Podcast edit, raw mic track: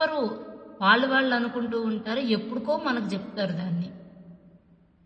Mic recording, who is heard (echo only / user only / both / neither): user only